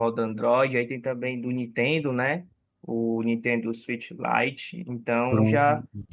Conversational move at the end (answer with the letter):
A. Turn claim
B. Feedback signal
B